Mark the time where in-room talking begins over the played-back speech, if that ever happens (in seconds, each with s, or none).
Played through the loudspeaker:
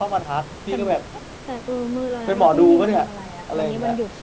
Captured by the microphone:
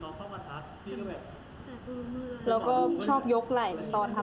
2.5 s